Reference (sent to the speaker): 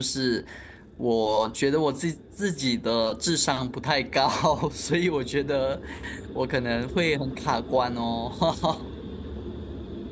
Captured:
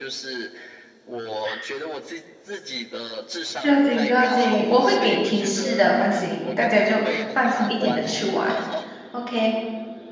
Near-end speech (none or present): present